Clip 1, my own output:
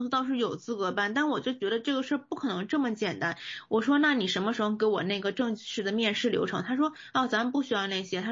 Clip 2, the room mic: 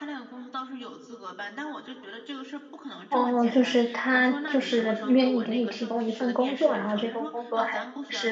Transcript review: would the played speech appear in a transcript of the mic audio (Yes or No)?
Yes